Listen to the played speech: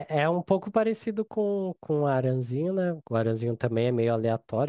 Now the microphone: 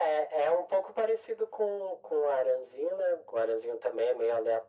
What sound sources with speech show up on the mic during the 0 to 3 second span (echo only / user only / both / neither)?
echo only